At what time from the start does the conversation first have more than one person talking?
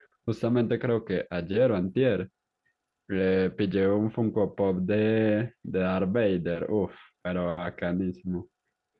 none

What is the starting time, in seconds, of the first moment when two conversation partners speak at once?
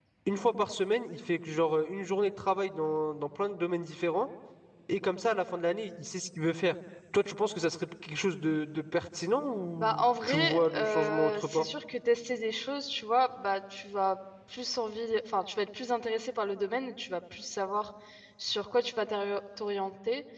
9.8 s

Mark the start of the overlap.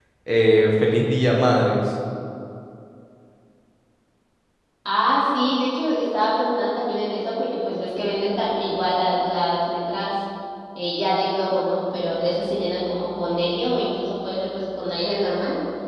none

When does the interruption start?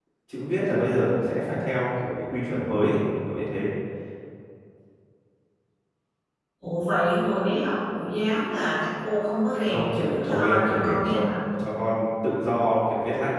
9.6 s

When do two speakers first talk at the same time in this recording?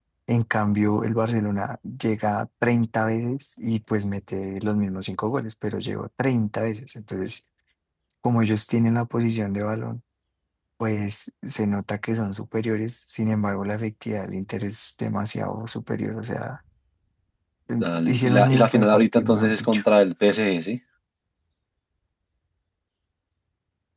17.8 s

